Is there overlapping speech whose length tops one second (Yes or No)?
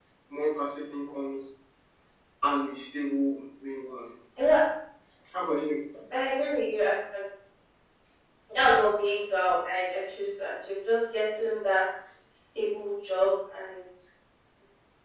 No